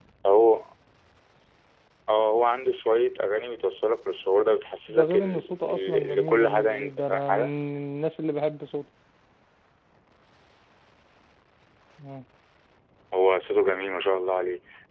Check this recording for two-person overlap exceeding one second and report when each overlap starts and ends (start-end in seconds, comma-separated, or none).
4.9-7.5